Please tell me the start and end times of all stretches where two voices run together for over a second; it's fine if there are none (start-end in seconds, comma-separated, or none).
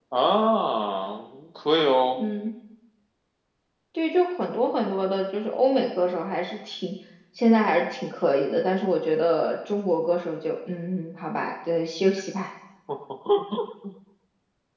none